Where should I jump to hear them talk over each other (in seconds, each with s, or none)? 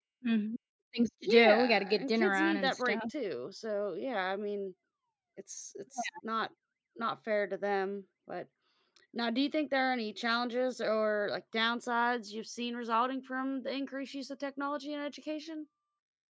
1.2 s